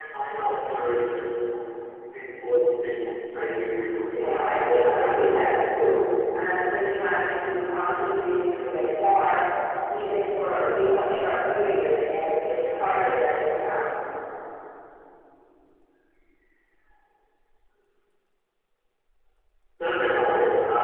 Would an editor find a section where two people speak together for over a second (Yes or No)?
Yes